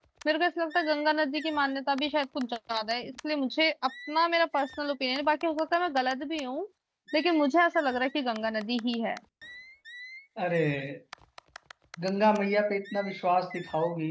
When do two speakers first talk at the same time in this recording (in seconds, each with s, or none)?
none